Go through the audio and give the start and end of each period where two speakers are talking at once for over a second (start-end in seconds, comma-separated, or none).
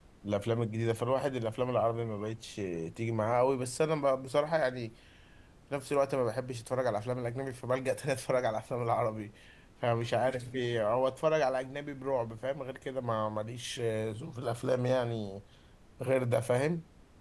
none